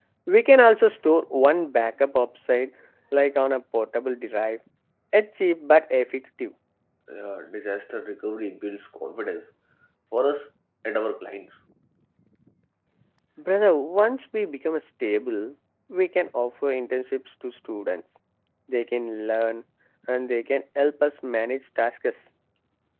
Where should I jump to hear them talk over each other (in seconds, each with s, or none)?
none